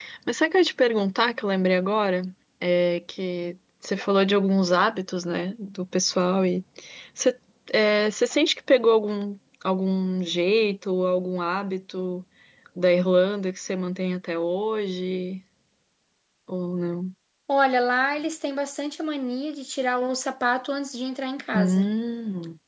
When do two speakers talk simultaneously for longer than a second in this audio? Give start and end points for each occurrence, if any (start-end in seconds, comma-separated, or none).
none